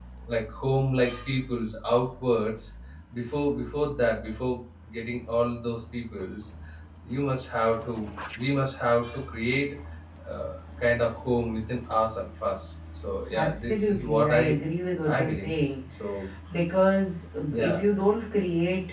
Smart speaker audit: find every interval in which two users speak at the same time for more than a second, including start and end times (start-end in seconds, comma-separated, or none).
13.3-14.6